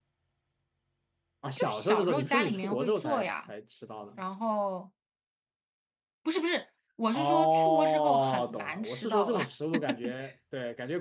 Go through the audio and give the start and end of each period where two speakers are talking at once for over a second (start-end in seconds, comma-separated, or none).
1.6-3.5, 7.1-9.4